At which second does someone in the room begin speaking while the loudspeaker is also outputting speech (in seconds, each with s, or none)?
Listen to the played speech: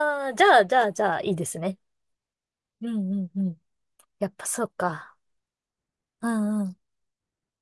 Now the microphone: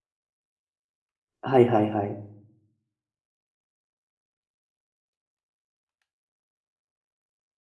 1.4 s